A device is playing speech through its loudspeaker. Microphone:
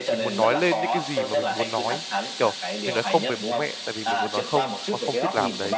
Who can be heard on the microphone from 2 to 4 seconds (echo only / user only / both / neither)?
both